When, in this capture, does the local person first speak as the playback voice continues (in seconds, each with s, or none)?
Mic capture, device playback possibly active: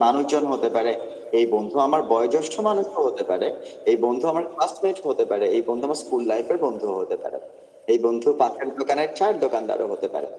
none